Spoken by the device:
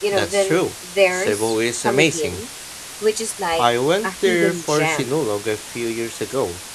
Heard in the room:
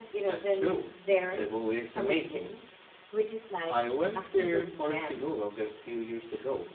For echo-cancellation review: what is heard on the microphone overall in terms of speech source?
echo only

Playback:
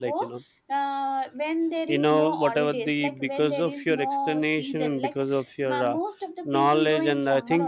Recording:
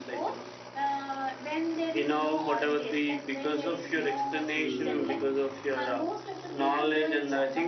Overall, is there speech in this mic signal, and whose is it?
both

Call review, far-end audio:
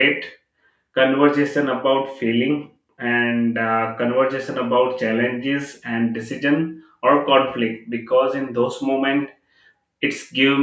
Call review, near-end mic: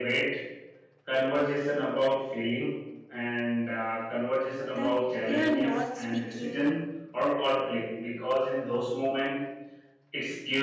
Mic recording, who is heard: both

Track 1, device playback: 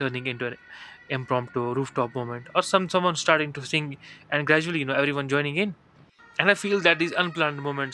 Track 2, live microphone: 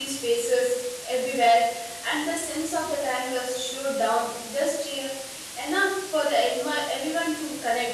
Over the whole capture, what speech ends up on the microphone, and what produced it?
user only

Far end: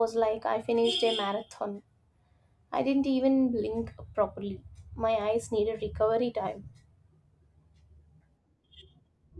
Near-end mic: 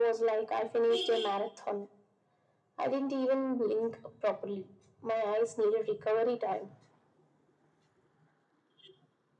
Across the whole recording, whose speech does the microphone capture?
echo only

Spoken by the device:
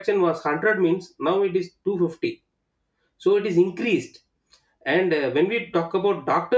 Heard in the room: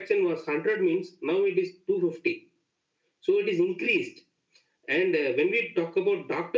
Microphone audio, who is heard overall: echo only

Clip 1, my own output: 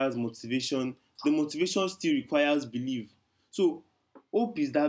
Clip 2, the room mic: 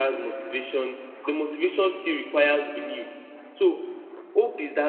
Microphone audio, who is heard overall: echo only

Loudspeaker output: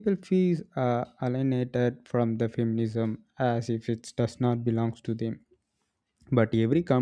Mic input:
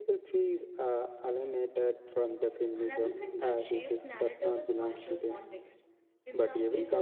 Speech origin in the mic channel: both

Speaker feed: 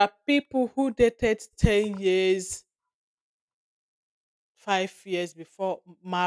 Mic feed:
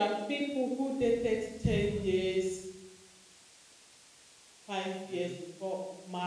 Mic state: both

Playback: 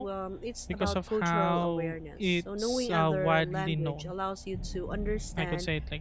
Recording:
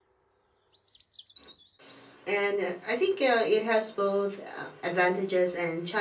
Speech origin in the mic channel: user only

